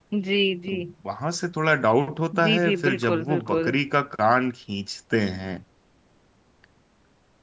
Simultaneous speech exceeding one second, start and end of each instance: 2.4-3.7

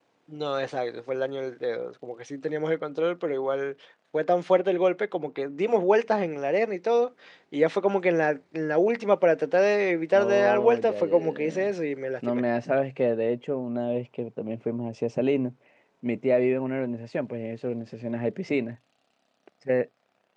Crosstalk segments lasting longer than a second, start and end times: 10.1-11.7

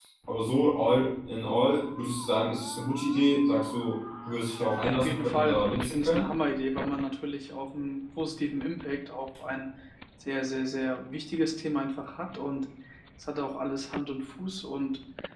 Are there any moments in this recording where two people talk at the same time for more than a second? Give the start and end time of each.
5.0-6.3

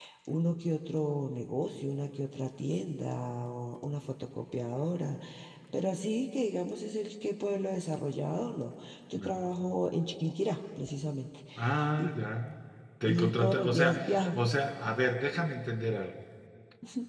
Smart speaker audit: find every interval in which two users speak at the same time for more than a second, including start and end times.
13.0-14.3

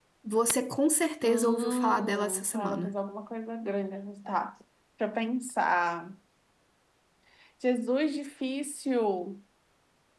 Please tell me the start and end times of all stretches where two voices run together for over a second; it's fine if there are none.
1.2-3.0

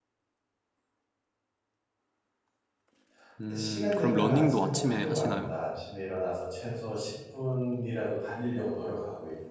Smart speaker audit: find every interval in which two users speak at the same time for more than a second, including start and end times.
3.5-5.5

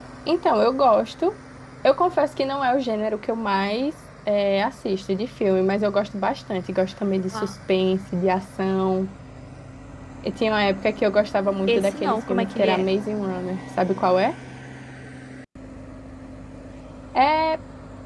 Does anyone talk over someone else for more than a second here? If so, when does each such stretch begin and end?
11.7-12.9

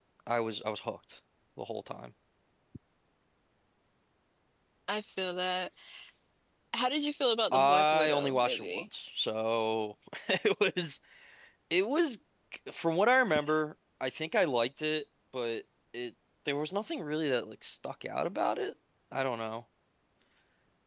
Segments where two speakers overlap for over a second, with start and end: 7.5-8.8

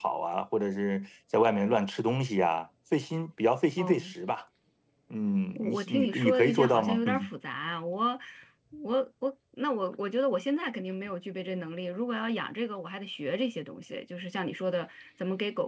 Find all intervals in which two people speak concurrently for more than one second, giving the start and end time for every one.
5.5-7.3

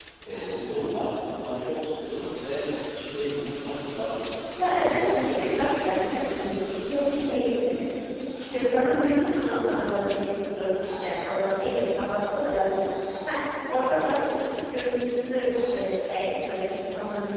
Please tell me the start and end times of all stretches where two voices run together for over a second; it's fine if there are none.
4.7-6.2

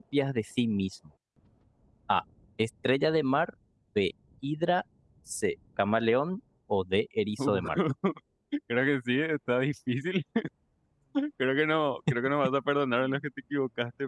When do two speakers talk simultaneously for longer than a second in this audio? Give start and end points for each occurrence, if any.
none

